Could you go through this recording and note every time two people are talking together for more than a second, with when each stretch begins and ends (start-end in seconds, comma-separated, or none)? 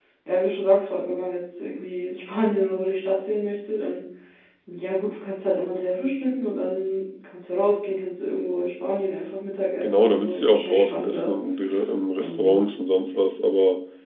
9.8-11.3